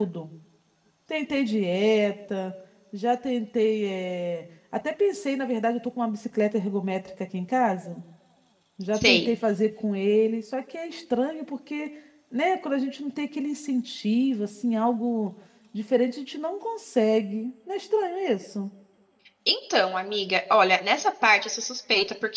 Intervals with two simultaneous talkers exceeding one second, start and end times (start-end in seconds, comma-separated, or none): none